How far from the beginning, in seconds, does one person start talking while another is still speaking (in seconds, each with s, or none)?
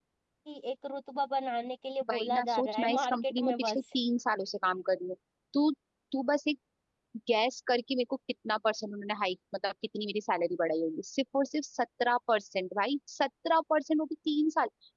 2.1 s